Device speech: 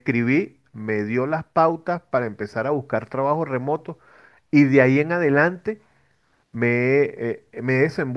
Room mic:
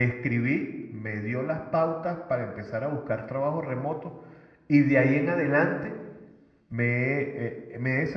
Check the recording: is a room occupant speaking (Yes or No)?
No